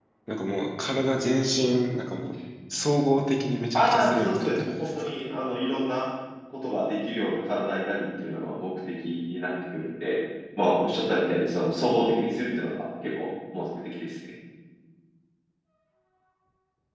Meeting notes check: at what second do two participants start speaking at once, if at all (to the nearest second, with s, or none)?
4 s